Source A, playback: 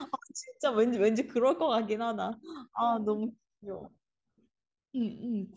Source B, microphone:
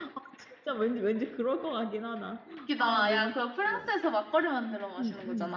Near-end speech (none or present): present